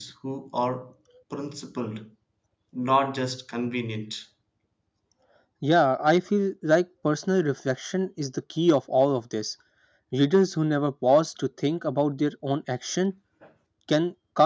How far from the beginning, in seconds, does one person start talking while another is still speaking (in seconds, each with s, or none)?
none